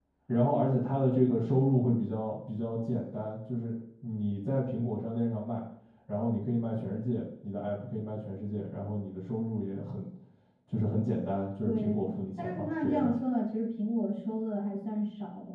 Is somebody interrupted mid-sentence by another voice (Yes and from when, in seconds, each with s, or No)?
Yes, from 11.6 s